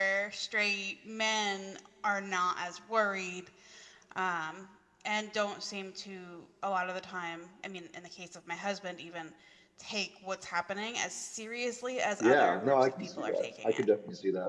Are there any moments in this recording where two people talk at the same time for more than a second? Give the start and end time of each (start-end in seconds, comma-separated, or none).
12.2-13.8